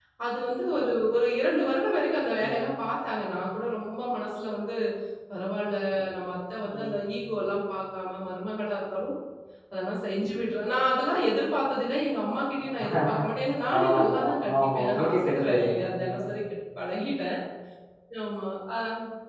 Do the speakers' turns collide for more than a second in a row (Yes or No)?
Yes